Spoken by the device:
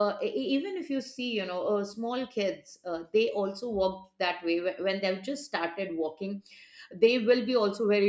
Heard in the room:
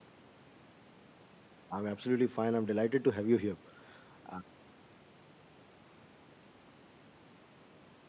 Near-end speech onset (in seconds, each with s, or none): 1.7 s